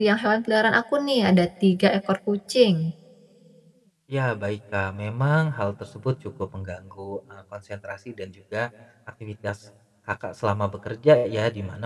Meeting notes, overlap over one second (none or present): none